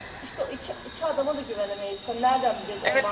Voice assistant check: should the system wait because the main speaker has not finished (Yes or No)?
No